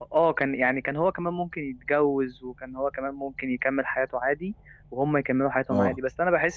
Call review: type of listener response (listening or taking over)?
listening